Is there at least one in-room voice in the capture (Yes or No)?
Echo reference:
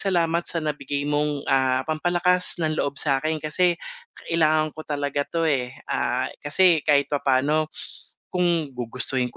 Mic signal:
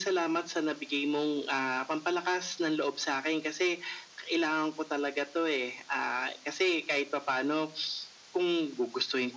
No